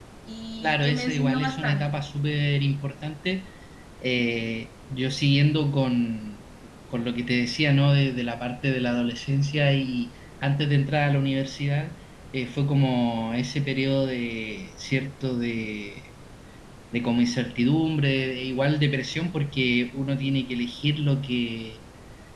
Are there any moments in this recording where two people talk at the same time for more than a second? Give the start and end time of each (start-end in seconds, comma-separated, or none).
0.6-1.9